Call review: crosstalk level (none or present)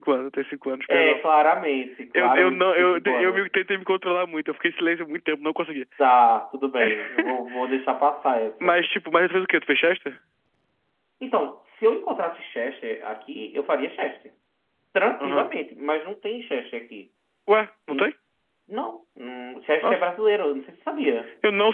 present